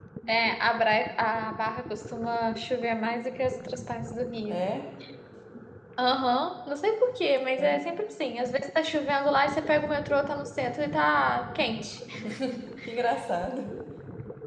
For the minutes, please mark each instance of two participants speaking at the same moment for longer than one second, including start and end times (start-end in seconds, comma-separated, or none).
none